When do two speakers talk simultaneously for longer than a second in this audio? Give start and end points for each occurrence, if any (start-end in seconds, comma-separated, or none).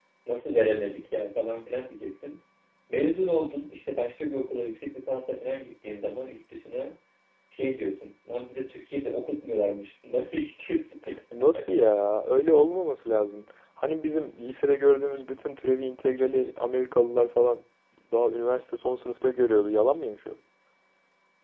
none